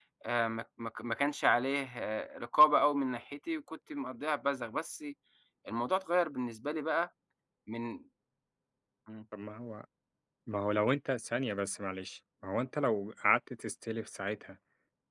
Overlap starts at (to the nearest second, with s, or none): none